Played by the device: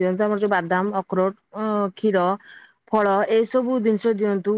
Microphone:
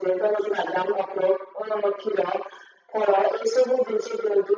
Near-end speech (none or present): none